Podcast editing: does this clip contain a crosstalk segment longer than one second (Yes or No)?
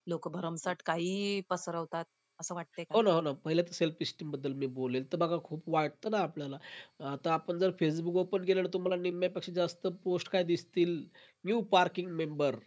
No